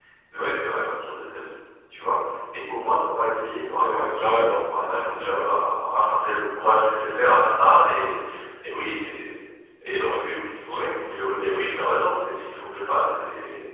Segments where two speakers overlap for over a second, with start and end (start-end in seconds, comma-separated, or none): 3.7-5.5